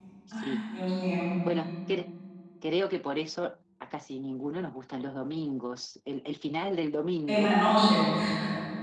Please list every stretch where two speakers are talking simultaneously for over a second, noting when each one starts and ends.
none

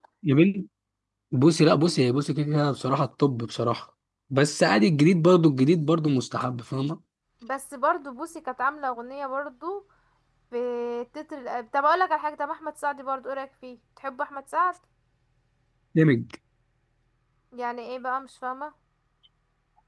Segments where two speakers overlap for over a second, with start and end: none

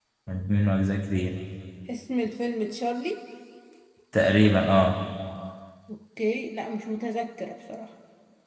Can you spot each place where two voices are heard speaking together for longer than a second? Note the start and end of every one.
none

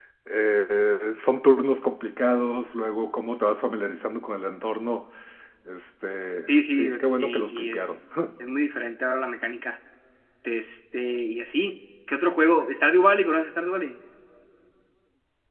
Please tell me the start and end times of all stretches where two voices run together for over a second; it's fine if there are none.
6.5-7.8

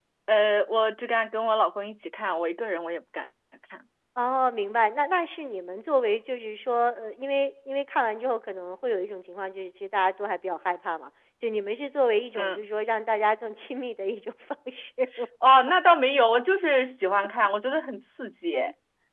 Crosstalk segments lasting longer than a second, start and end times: none

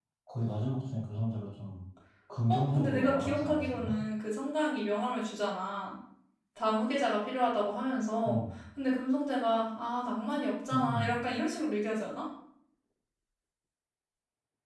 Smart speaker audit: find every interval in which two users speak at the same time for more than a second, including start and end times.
2.5-4.0

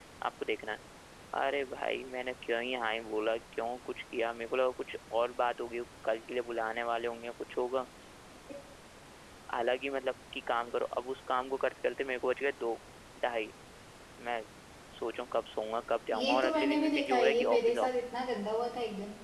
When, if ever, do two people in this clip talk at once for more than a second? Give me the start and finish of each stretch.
16.1-17.9

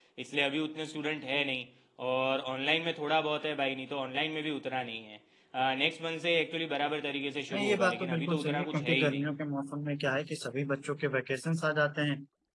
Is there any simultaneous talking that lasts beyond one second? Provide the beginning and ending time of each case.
7.5-9.3

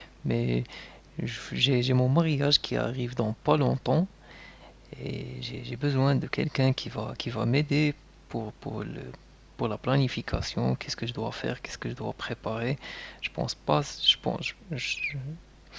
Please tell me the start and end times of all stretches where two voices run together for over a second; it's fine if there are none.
none

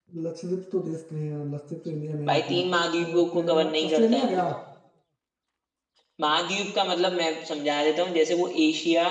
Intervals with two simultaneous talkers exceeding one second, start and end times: 3.1-4.4

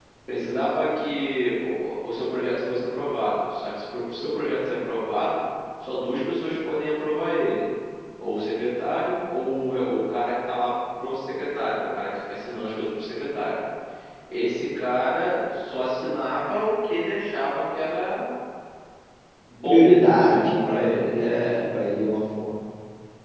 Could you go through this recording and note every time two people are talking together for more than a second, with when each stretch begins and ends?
19.6-21.7

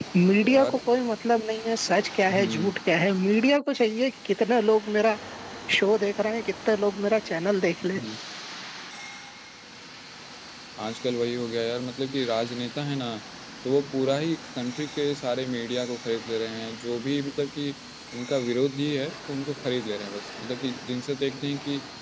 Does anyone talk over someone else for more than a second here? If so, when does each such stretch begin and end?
none

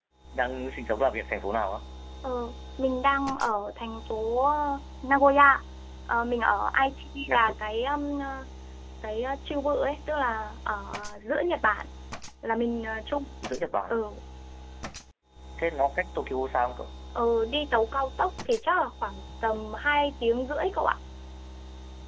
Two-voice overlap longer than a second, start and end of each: none

